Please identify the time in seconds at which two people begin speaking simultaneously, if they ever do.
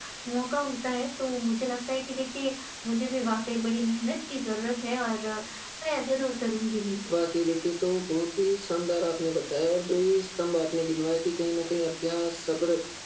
none

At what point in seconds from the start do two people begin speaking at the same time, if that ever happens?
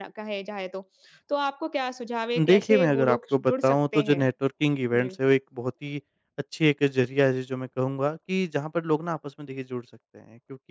2.4 s

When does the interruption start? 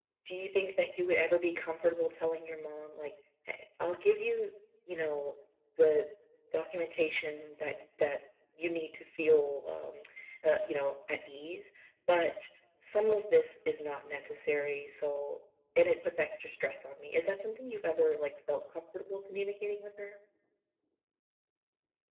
none

